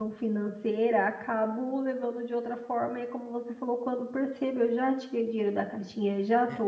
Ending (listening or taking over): listening